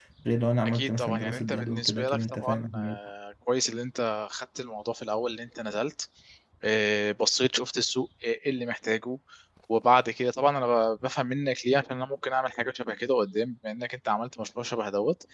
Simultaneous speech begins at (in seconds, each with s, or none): 0.6 s